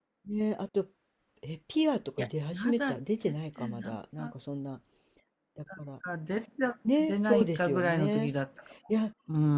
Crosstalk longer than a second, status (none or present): present